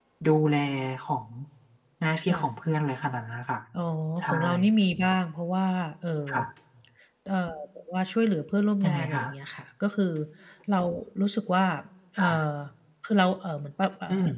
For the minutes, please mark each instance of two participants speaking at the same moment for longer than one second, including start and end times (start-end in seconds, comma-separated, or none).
none